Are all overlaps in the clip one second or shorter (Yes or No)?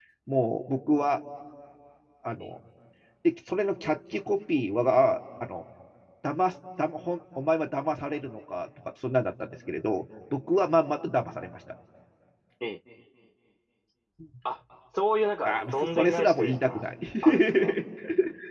No